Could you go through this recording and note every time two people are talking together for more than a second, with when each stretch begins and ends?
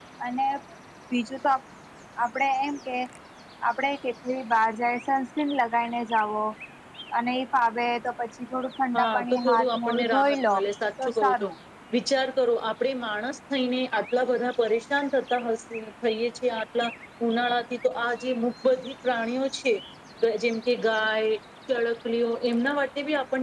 9.0-10.5

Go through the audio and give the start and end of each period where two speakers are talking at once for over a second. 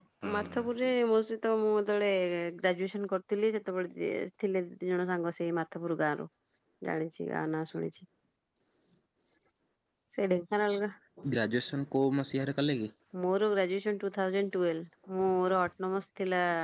none

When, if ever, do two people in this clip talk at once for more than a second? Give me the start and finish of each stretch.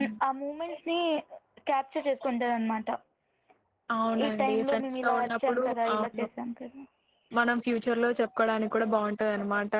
4.2-6.2

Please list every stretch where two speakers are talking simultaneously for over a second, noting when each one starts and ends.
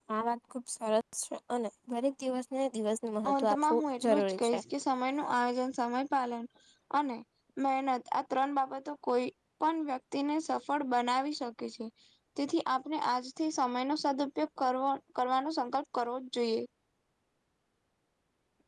3.3-4.6

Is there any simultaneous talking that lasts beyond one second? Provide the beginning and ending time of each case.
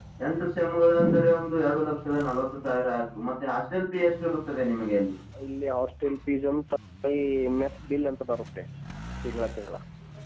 none

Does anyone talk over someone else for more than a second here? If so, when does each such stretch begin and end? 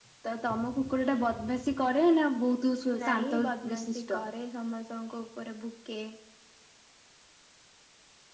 3.0-4.2

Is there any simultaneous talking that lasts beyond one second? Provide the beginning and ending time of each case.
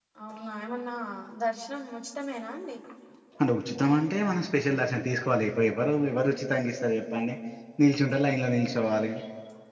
none

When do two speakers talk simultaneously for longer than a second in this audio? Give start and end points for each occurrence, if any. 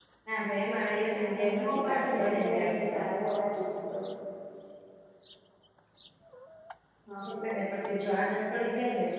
1.1-3.0

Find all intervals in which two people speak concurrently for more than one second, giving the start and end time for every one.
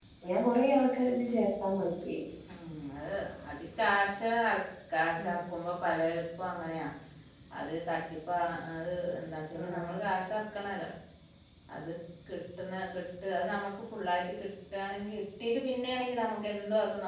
none

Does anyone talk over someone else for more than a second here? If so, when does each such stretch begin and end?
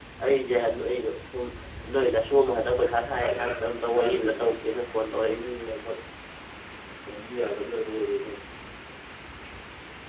3.2-4.5

